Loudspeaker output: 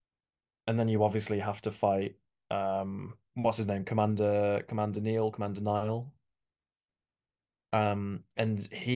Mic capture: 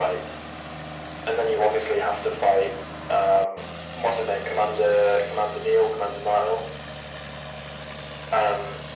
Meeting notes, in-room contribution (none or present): none